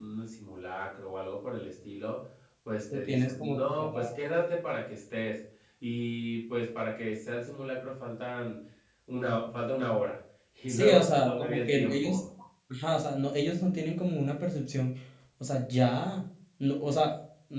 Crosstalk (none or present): present